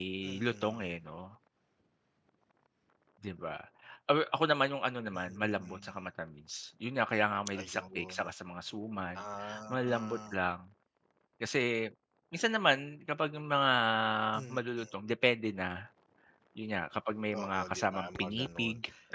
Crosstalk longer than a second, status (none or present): present